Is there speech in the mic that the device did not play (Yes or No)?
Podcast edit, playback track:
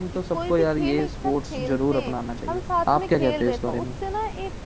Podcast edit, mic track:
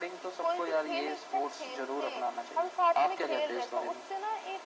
No